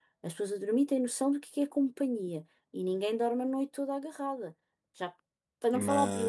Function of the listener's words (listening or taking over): listening